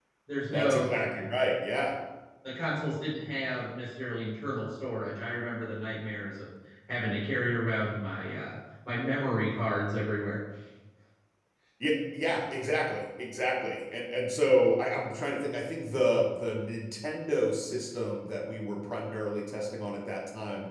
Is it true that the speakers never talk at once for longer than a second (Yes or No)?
Yes